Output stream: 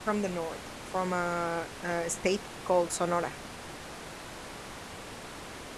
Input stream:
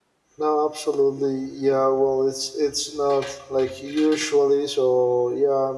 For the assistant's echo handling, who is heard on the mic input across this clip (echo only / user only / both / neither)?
user only